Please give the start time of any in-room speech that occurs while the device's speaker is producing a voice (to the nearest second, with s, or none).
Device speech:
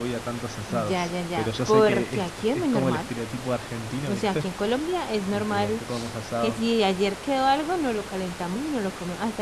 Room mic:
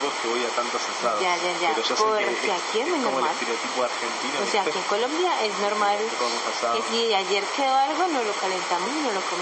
none